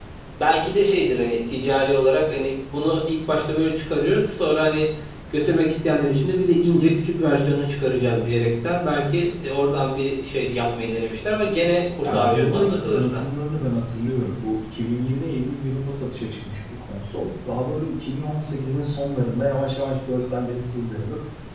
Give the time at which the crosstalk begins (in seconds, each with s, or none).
12.0 s